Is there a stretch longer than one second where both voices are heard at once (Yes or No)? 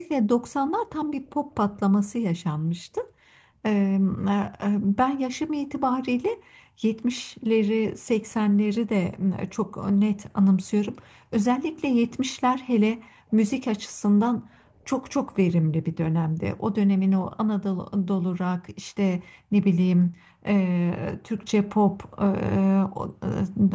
No